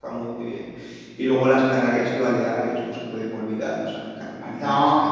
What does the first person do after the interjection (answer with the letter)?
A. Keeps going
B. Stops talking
A